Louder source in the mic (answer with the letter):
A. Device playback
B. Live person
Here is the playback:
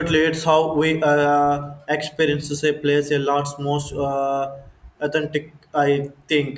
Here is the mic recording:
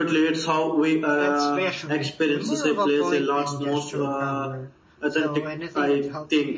A